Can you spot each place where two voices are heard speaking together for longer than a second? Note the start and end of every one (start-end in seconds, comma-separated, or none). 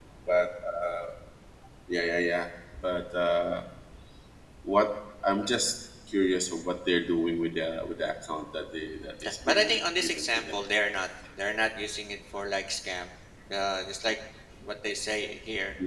9.2-10.6